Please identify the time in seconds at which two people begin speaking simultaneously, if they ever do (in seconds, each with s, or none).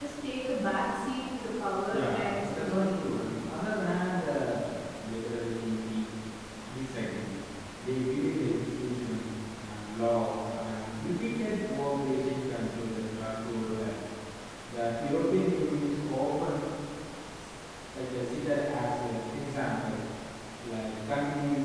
1.9 s